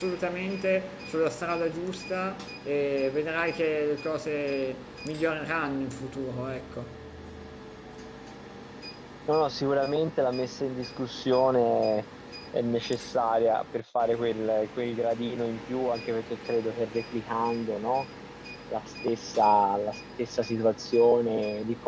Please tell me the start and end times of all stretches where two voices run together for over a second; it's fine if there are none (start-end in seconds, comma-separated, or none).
none